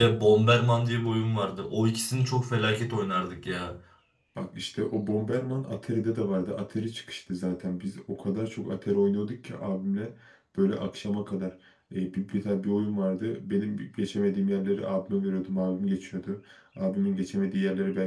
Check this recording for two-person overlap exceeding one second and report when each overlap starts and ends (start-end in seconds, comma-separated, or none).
none